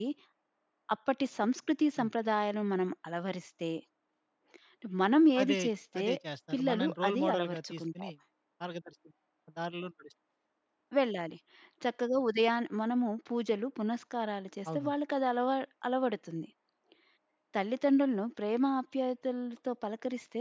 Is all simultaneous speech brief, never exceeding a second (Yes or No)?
No